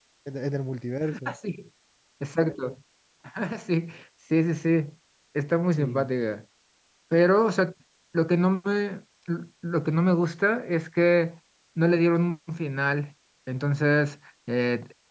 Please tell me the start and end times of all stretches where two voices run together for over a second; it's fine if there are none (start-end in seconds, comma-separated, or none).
none